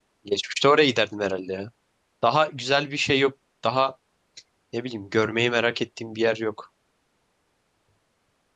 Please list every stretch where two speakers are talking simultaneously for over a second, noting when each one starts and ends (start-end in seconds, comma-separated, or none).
none